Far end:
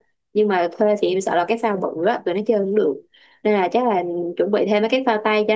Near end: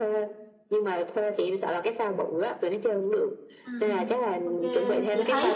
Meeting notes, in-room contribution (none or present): present